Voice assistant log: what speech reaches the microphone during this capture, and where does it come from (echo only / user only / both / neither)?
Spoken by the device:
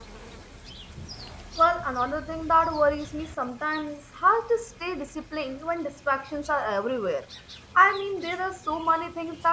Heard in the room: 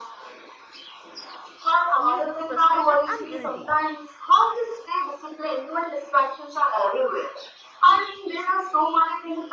both